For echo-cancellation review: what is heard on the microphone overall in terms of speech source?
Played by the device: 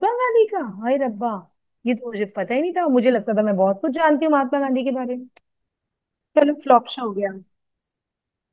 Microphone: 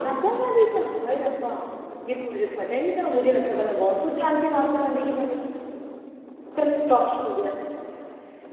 echo only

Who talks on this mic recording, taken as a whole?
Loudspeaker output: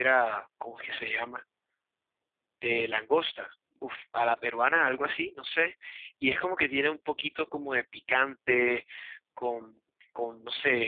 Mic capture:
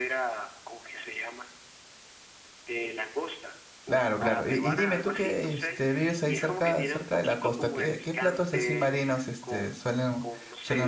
both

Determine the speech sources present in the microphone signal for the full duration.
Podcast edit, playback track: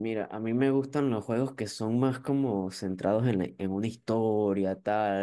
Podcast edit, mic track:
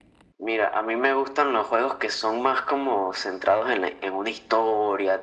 echo only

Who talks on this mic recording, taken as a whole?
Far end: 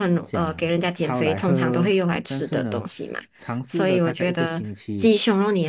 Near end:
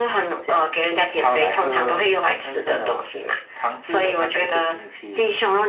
echo only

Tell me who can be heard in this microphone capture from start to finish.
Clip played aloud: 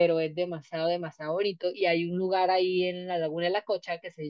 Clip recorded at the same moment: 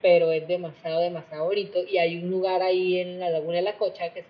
echo only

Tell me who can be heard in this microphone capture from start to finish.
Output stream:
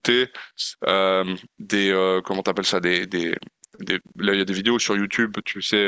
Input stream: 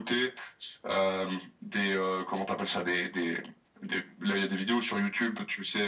echo only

